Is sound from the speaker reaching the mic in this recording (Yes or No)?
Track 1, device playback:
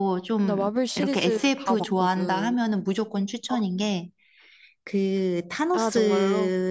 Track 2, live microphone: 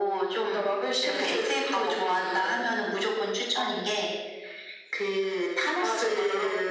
Yes